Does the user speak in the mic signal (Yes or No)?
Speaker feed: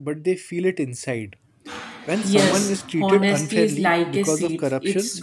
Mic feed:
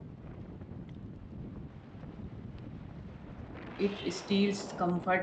Yes